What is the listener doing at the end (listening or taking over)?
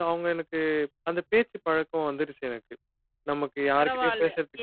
taking over